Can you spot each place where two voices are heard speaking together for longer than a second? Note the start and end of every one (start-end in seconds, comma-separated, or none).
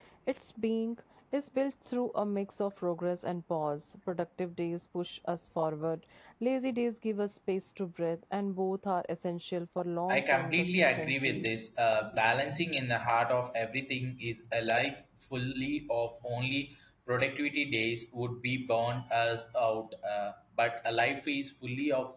10.1-11.5